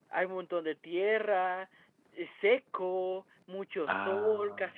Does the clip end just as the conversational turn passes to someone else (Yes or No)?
No